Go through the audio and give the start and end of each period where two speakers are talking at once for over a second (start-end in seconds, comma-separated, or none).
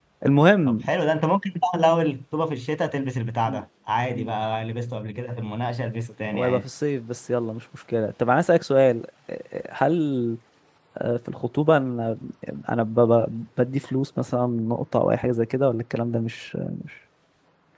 none